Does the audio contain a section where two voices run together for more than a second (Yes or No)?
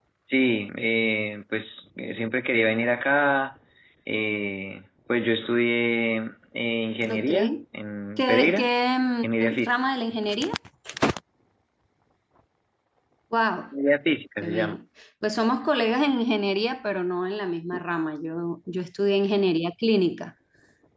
No